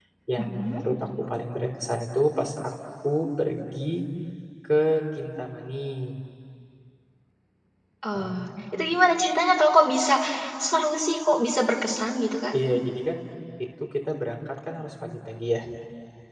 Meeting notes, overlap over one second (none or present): none